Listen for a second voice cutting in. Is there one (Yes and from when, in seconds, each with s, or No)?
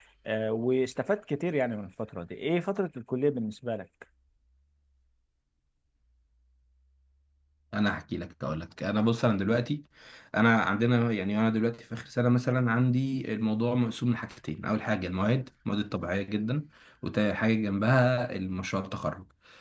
No